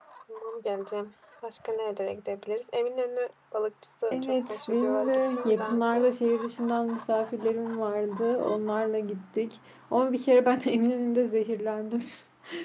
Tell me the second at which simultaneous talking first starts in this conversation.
4.1 s

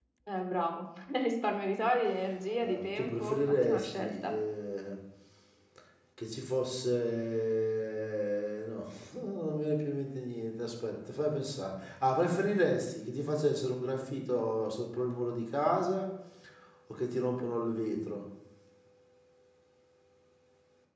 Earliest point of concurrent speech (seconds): 2.6 s

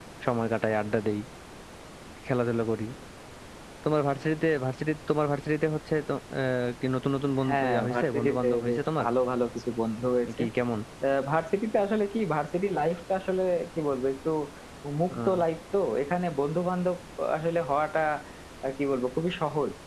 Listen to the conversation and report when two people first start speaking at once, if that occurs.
7.5 s

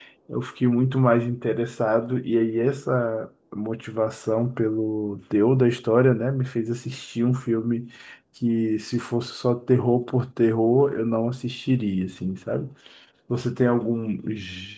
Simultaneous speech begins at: none

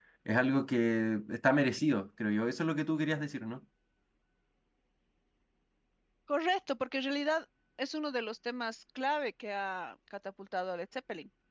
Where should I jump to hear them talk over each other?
none

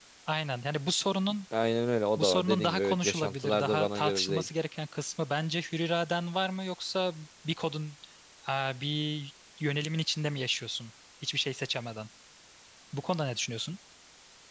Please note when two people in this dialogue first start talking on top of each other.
2.2 s

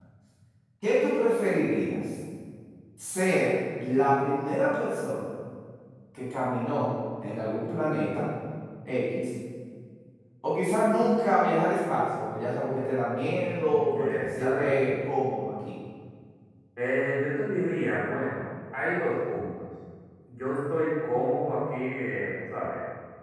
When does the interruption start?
13.7 s

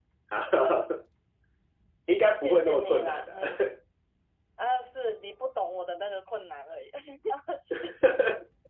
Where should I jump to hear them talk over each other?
2.4 s

